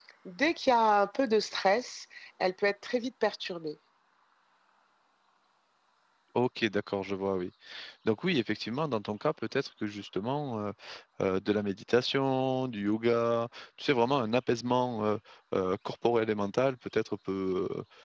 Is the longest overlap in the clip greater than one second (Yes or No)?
No